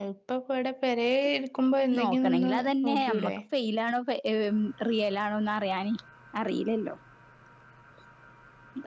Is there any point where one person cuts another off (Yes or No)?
Yes